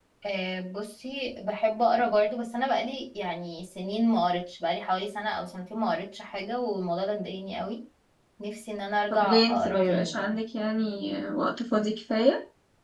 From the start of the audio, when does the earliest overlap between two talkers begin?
9.1 s

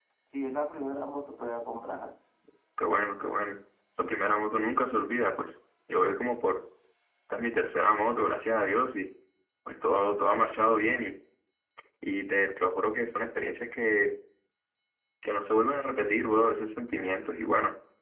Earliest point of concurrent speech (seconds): none

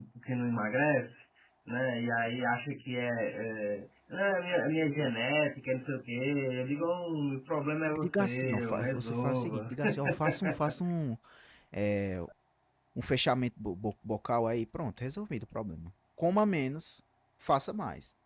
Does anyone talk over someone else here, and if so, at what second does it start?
7.8 s

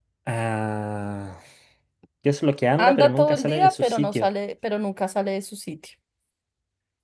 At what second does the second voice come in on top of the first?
2.8 s

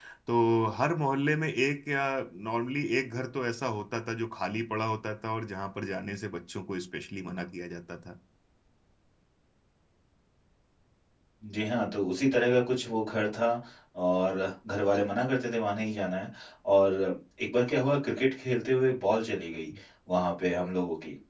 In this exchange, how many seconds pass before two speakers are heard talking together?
none

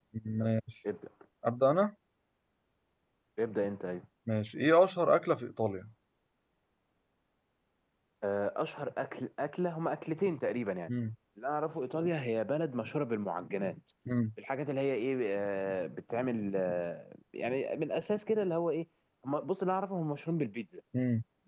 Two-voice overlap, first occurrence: none

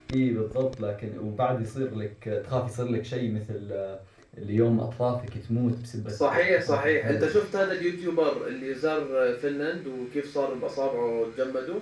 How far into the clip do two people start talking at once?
6.0 s

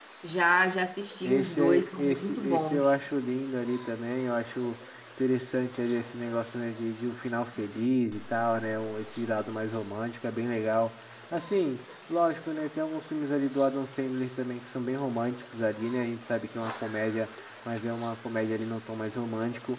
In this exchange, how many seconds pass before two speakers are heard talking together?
1.2 s

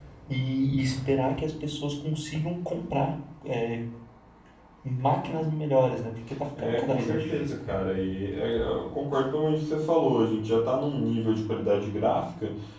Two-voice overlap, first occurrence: 6.6 s

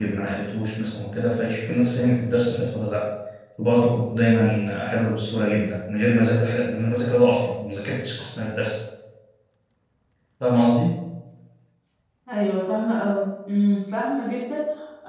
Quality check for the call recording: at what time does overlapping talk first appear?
none

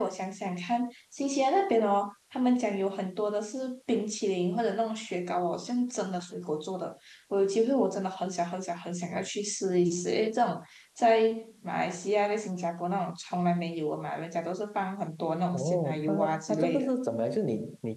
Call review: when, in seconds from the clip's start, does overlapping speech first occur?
15.5 s

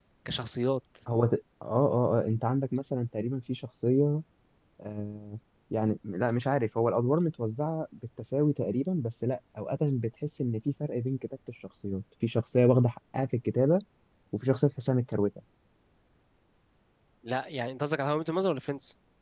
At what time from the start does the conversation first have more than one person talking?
none

